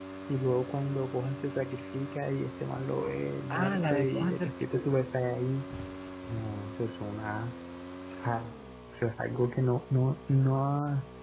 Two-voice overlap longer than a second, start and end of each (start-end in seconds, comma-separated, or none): 3.5-4.8